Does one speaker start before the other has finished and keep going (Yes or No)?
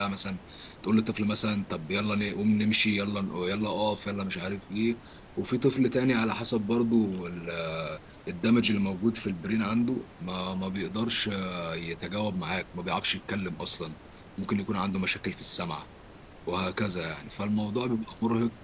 No